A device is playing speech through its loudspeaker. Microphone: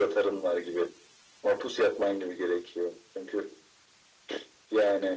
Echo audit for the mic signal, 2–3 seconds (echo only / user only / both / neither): echo only